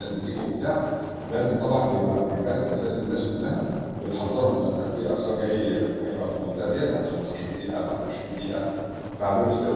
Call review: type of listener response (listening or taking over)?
taking over